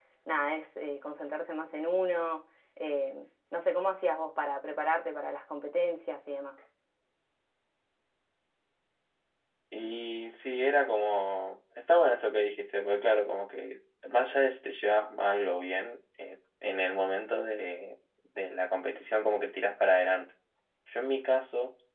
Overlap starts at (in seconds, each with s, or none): none